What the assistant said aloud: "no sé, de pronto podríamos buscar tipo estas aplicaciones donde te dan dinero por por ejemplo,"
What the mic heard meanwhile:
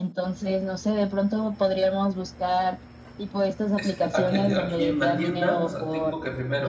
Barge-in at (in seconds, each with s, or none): 3.7 s